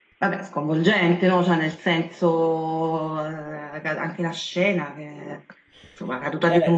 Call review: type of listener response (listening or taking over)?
taking over